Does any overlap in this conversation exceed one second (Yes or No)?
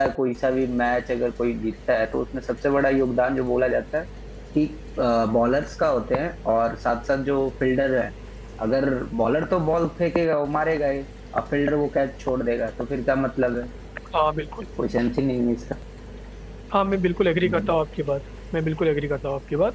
No